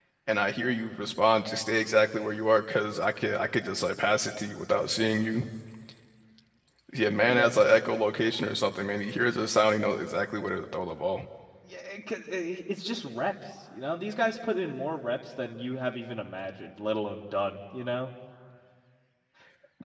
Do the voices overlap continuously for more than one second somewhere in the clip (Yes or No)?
No